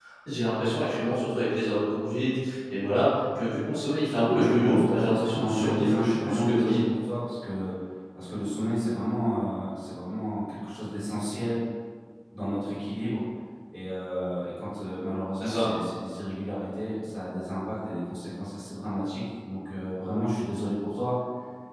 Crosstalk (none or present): present